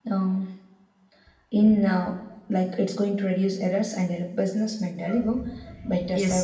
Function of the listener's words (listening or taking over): taking over